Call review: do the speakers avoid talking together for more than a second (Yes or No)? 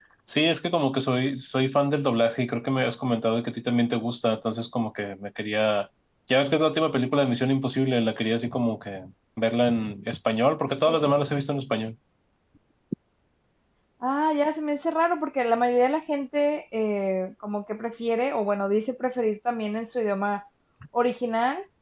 Yes